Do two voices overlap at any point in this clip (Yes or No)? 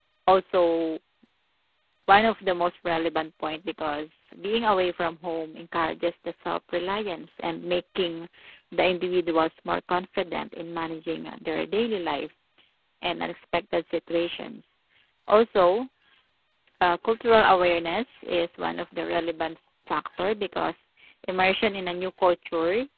No